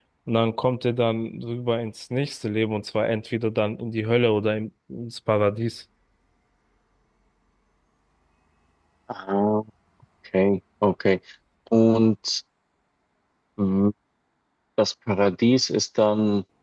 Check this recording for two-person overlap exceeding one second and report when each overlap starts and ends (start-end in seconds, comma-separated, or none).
none